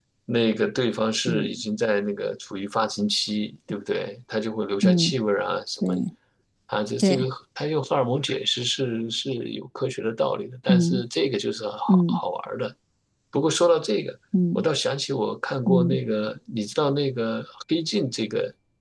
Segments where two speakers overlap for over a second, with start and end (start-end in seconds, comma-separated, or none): none